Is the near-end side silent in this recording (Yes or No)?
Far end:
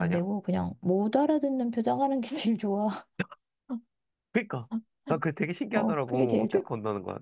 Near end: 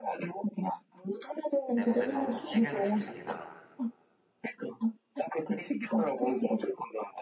No